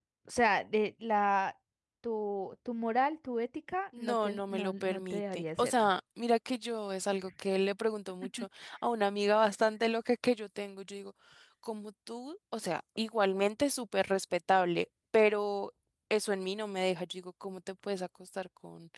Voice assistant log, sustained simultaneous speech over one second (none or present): present